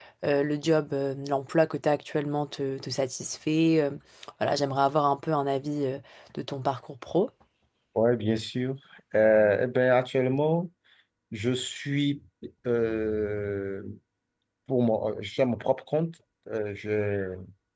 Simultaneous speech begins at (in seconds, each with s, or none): none